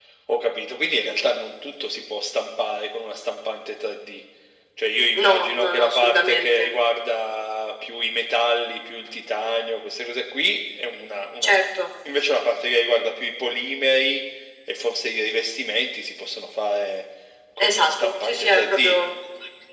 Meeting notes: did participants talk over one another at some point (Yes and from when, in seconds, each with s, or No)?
Yes, from 5.2 s